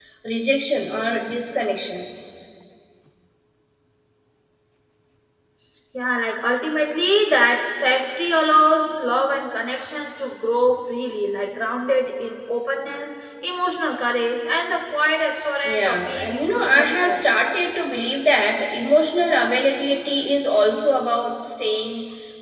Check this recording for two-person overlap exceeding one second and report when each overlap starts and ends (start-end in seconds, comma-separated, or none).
15.6-17.2